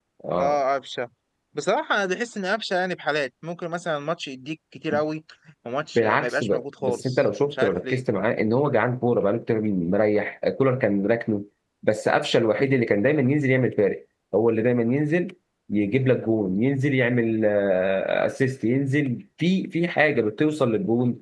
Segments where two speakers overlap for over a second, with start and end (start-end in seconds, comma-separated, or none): 6.0-8.0